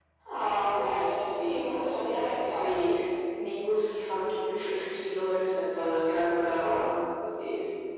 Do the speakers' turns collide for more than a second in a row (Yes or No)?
Yes